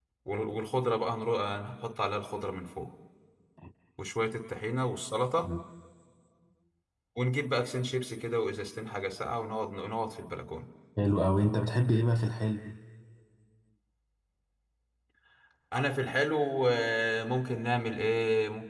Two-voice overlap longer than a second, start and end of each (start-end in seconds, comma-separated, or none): none